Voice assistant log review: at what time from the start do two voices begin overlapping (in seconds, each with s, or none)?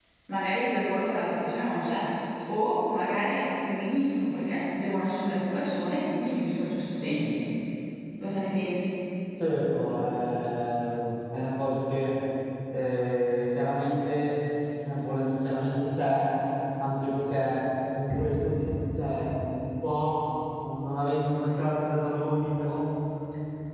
none